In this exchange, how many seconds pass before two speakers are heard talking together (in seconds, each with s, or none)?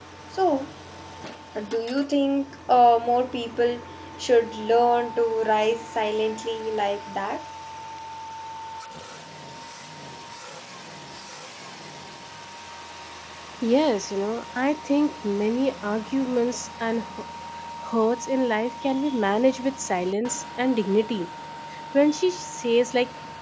none